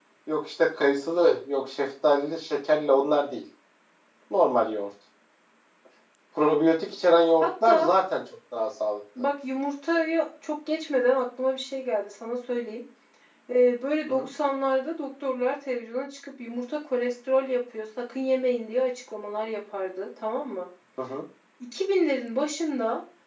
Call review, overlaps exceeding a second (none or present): none